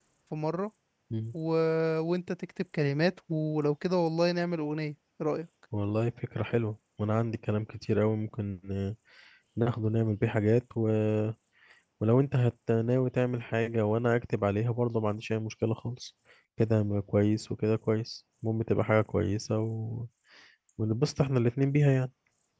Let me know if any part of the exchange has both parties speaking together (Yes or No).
No